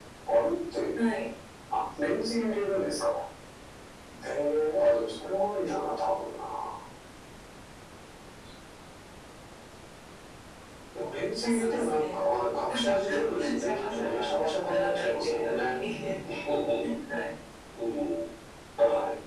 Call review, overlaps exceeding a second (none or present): present